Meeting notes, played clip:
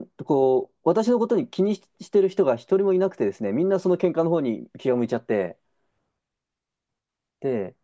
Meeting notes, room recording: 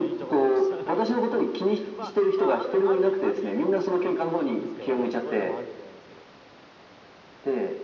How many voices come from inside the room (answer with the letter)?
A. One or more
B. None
A